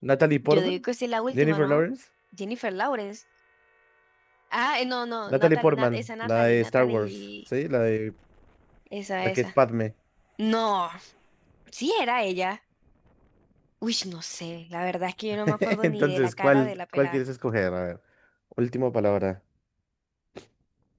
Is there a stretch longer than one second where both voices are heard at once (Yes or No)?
Yes